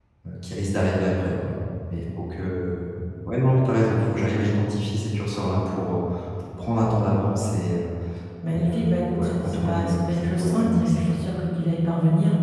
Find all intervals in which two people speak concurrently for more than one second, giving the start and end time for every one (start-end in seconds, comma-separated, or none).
8.5-11.2